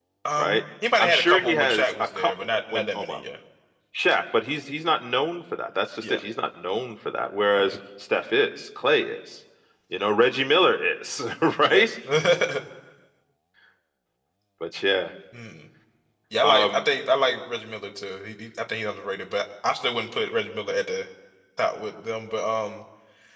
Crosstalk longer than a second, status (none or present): present